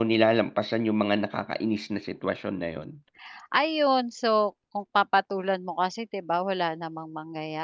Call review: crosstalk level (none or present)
none